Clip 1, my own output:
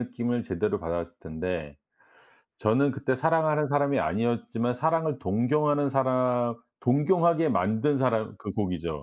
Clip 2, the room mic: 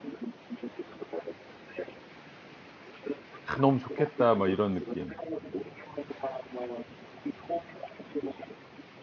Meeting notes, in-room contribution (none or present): present